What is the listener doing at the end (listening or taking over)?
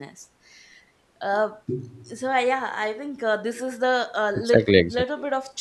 listening